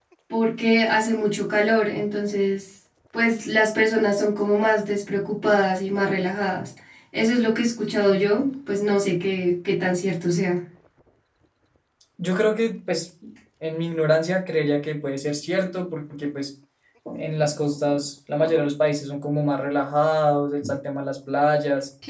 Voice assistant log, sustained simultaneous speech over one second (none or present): none